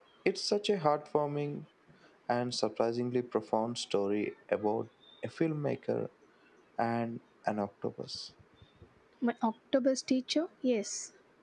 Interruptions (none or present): none